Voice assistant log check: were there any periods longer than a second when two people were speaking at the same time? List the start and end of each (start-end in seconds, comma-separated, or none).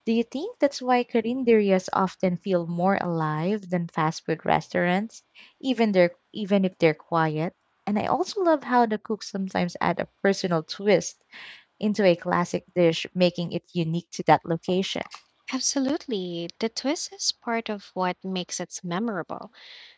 none